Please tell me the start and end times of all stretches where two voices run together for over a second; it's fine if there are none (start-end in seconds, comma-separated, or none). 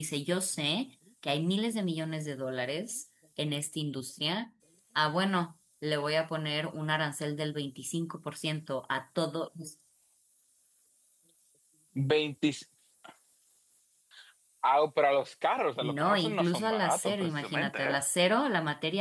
15.8-18.0